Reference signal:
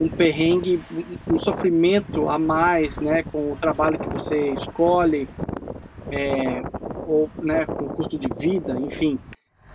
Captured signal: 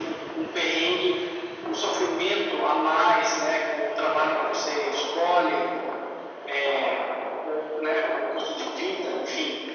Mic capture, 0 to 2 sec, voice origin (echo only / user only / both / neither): echo only